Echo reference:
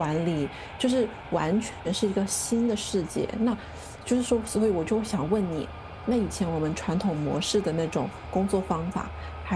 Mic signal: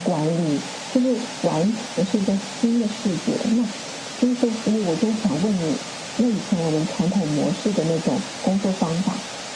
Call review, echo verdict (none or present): present